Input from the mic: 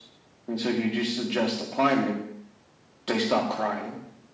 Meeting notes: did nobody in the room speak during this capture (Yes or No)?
Yes